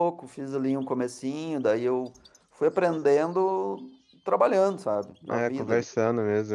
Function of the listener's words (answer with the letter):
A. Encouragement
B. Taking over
B